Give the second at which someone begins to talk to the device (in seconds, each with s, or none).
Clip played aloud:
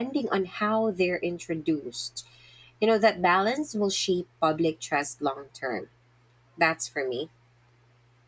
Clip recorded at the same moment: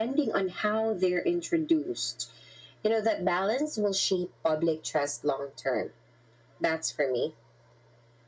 none